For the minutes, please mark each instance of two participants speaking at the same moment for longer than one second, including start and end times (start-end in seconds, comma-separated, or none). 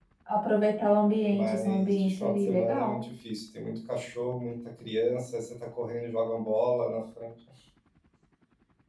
1.3-3.0